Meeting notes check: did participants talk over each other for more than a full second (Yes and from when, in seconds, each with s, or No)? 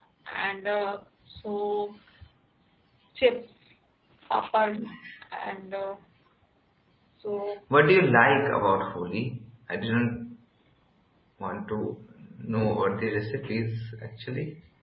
No